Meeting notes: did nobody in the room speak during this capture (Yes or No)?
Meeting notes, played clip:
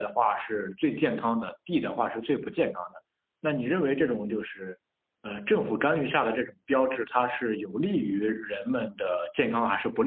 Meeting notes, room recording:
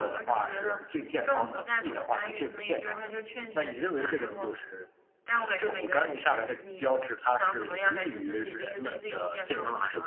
No